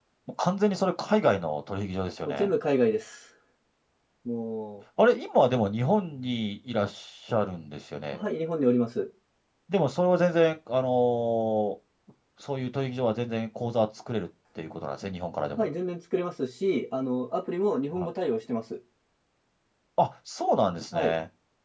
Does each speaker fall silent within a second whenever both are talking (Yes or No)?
Yes